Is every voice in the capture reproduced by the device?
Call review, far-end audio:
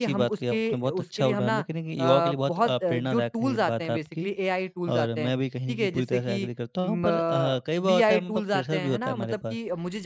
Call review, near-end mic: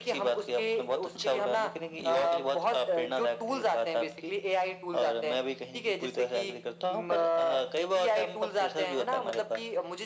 Yes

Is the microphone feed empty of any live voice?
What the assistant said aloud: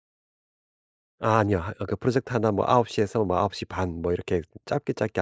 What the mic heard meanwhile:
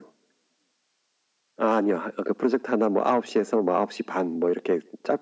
Yes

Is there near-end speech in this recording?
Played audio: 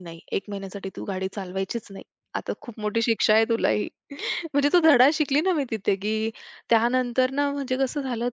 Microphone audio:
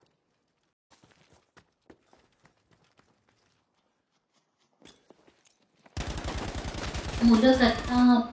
Yes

